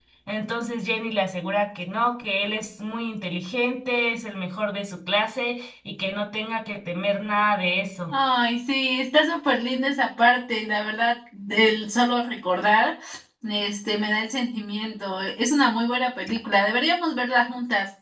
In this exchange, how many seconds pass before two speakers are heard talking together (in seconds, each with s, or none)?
none